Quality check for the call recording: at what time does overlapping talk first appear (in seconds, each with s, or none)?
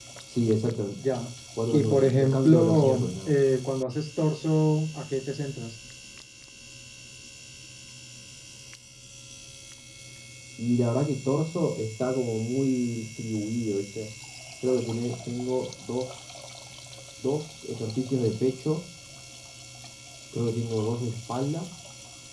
1.7 s